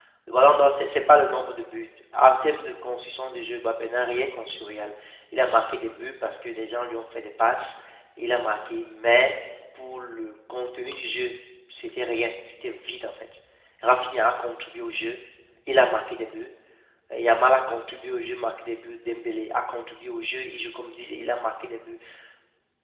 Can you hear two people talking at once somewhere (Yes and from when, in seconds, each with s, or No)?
No